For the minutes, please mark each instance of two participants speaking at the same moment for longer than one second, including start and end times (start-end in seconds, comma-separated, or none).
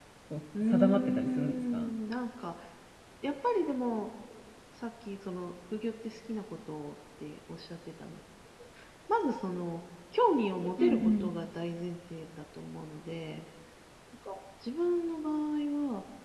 0.6-1.9